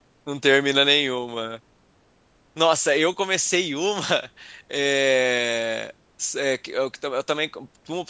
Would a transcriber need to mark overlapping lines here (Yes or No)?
No